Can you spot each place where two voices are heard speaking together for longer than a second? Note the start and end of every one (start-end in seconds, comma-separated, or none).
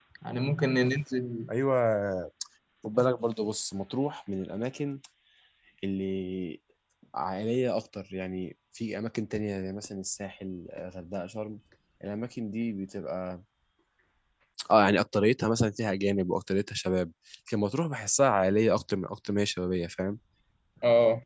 none